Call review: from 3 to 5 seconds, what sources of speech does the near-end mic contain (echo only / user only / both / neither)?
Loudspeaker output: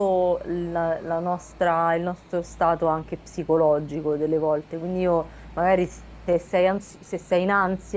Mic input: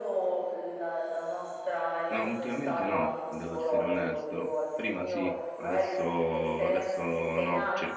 both